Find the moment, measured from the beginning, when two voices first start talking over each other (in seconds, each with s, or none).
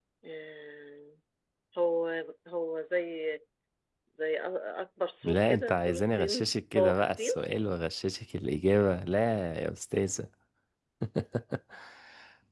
5.2 s